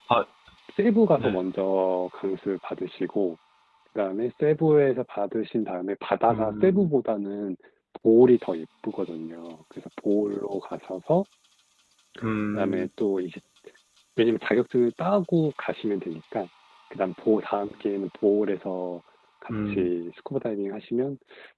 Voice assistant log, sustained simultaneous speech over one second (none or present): none